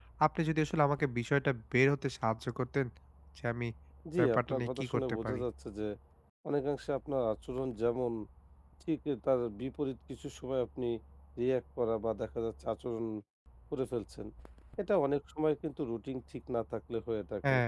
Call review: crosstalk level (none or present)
present